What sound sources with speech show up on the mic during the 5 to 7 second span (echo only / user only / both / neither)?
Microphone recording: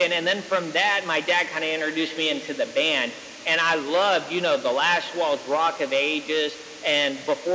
echo only